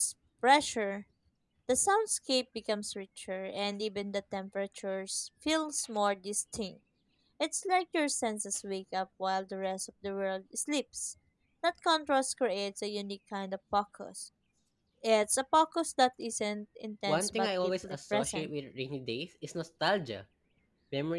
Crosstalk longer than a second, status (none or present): present